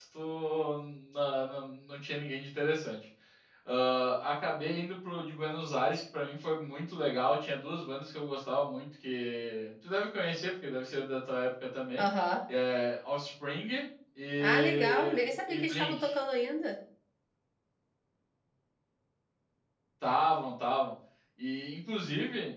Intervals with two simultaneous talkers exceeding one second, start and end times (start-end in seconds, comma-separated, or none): 14.4-16.0